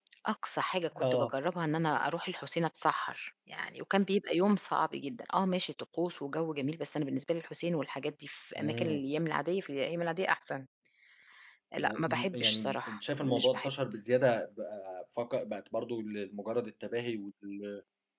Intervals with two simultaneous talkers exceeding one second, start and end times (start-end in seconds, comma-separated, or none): 11.8-13.7